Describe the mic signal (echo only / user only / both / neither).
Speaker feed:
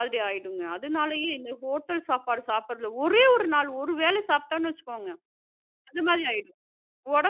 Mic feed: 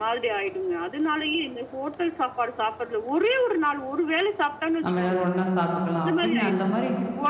both